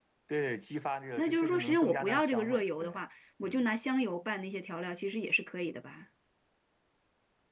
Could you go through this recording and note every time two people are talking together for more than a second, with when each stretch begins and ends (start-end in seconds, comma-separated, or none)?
1.2-3.0